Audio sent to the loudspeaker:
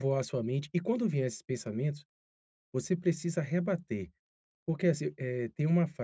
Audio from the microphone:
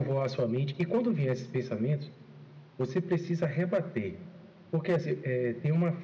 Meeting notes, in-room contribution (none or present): none